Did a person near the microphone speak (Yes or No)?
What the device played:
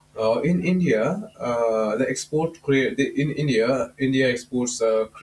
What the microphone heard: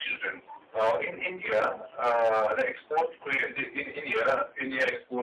No